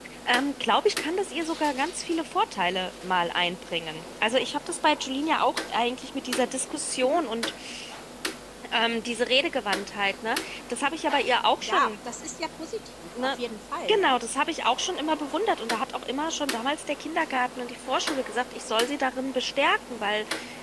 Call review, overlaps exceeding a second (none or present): none